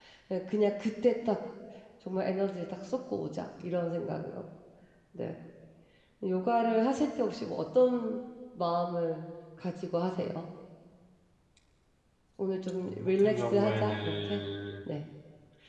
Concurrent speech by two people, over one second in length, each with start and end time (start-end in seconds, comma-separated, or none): 12.9-14.4